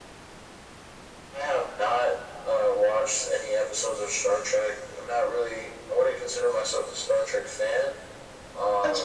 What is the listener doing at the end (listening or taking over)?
listening